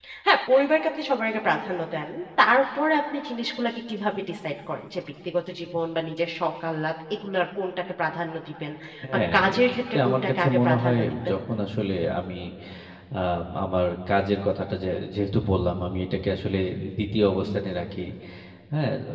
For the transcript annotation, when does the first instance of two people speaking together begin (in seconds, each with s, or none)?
9.3 s